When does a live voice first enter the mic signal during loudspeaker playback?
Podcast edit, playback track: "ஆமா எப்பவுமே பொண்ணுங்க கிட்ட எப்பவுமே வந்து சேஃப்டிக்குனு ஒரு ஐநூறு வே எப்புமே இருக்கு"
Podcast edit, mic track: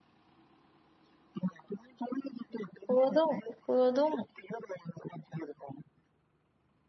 2.9 s

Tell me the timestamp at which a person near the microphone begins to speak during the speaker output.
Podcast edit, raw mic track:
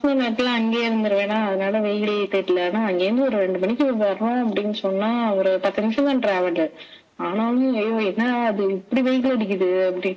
none

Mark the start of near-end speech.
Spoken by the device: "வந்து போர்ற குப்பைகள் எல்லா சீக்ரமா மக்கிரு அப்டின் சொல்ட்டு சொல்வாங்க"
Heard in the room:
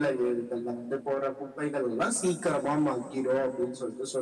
none

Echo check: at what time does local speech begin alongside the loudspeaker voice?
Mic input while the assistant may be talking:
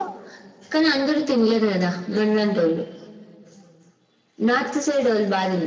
none

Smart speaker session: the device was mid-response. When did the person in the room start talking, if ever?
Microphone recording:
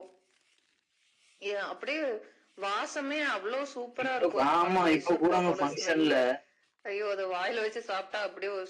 4.0 s

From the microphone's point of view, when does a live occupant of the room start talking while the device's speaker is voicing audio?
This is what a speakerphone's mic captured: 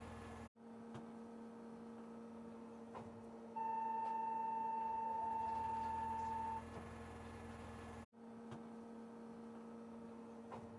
none

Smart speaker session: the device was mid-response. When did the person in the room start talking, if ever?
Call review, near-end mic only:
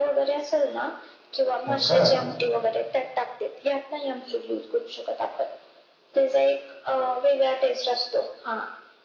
1.7 s

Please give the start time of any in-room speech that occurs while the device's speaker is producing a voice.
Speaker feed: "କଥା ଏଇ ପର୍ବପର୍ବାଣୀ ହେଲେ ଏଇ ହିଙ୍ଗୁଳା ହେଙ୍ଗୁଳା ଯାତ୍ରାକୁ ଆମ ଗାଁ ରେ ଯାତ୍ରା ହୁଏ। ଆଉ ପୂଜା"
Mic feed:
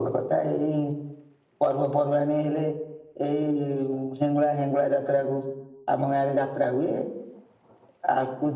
none

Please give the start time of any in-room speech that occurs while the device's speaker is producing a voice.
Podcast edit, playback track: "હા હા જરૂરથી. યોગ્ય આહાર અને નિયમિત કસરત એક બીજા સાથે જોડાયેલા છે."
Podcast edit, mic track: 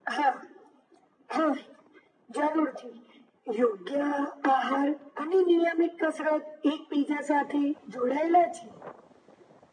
none

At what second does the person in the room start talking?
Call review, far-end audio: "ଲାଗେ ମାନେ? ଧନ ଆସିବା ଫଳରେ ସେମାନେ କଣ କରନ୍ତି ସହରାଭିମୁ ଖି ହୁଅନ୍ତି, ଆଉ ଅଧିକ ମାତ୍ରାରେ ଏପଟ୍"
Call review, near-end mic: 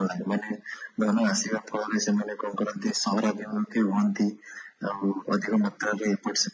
none

